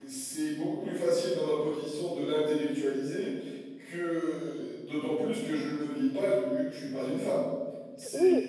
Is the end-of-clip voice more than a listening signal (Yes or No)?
Yes